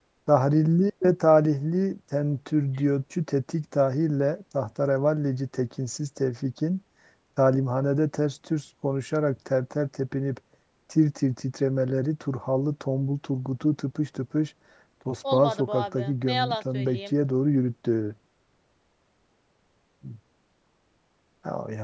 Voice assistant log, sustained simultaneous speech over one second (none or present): present